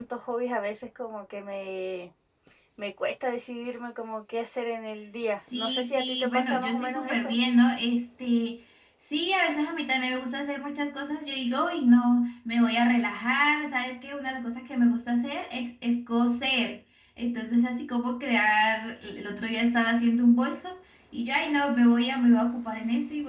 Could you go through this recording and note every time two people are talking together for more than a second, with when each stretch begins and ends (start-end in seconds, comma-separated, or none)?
5.5-7.3